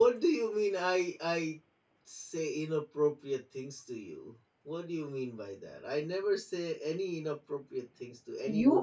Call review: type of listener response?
taking over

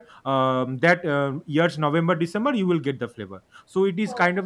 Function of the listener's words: listening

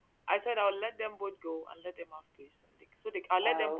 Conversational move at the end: listening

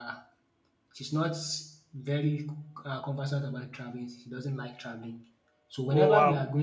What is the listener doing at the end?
listening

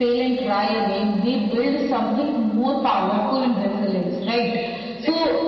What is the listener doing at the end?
listening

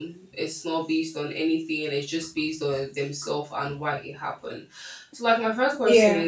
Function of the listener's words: listening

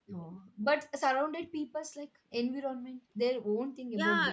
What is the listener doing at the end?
taking over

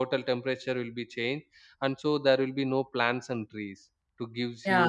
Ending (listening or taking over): taking over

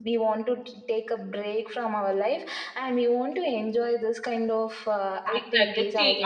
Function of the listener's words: taking over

